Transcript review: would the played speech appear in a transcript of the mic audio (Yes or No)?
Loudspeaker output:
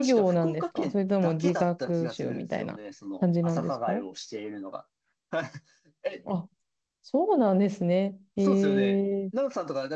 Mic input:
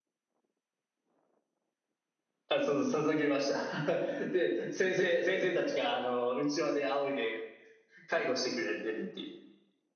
No